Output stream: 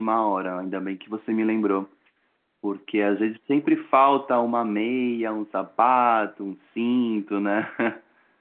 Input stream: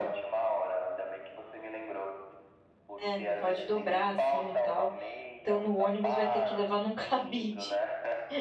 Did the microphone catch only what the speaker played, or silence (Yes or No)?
No